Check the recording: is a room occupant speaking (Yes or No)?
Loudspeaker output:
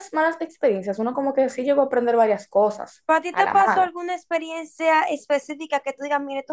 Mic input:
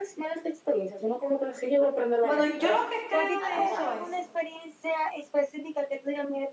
Yes